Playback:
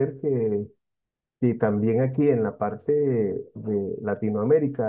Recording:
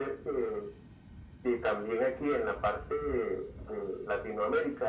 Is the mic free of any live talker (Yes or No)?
Yes